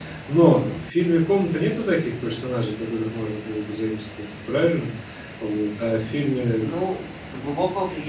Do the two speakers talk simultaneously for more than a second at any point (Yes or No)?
No